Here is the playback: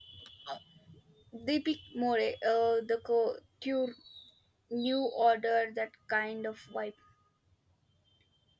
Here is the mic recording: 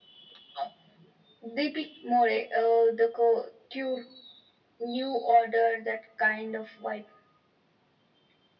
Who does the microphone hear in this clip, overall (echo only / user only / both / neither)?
echo only